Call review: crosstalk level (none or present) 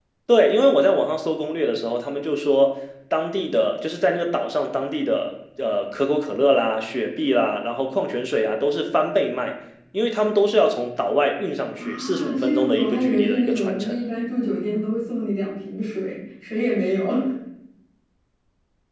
present